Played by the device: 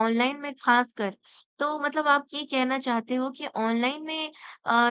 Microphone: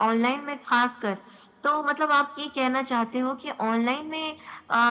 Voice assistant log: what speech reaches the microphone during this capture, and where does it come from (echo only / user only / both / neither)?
echo only